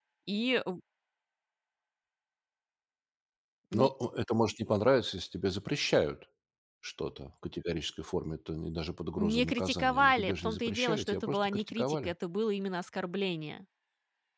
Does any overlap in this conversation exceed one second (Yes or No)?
Yes